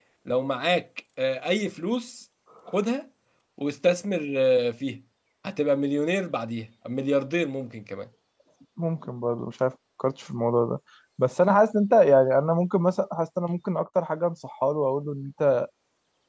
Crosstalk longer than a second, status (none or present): none